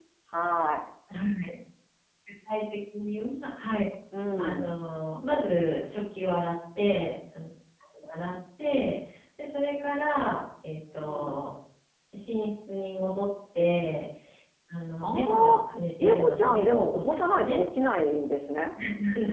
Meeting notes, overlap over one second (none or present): present